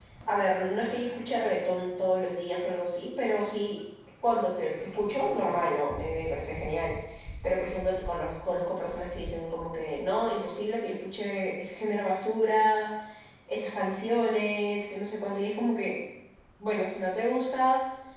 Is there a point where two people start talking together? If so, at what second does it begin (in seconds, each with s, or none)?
none